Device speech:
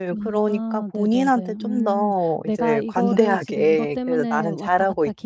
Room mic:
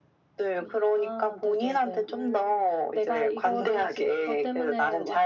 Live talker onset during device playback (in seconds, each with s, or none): none